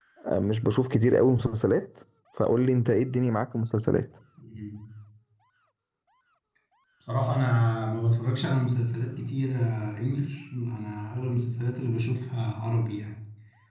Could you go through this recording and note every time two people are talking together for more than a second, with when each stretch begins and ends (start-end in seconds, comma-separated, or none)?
none